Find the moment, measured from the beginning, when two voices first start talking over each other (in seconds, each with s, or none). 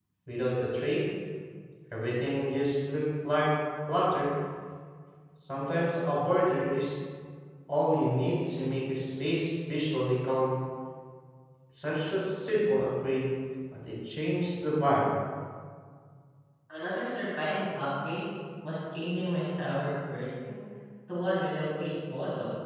none